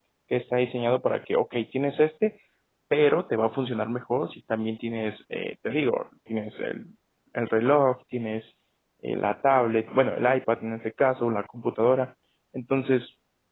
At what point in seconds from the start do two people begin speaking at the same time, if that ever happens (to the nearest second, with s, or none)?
none